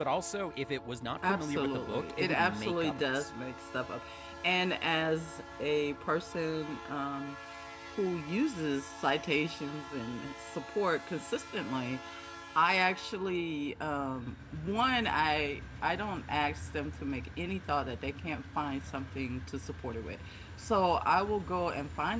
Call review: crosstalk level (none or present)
present